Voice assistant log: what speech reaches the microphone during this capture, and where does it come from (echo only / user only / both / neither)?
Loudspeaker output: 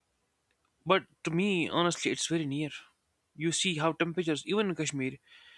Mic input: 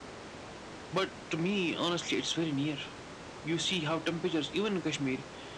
echo only